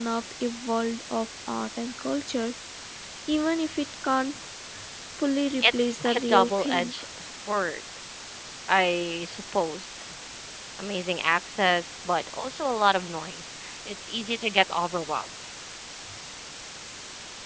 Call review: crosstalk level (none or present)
present